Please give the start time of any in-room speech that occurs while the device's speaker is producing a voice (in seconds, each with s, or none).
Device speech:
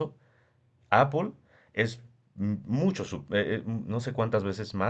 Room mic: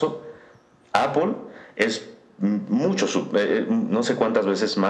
none